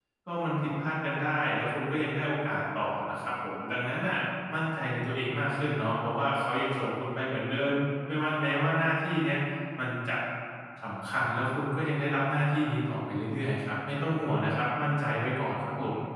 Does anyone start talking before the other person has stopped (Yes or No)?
No